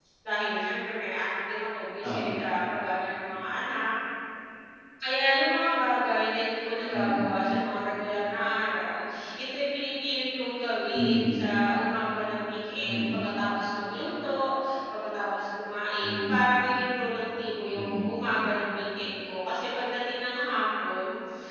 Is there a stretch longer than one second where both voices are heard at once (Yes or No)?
No